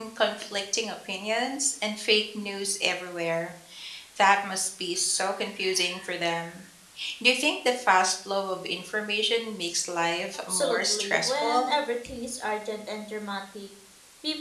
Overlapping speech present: Yes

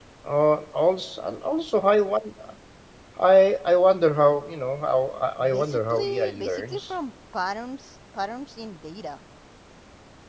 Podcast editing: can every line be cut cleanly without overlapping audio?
No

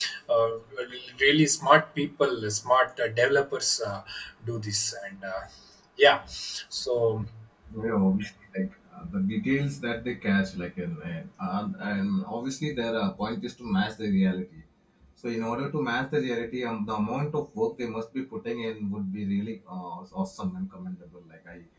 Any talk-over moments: No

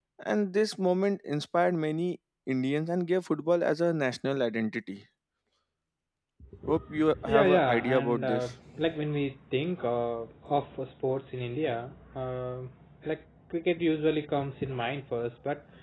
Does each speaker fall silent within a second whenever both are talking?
No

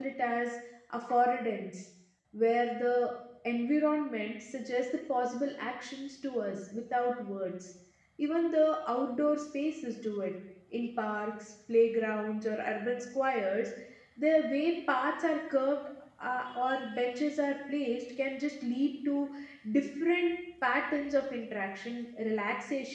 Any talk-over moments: No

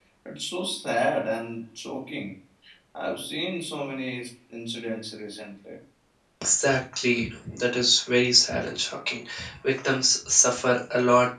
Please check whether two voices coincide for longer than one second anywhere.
No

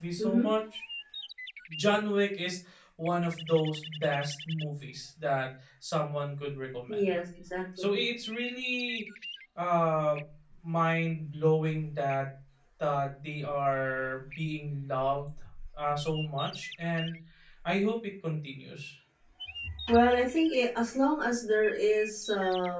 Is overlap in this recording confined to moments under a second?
Yes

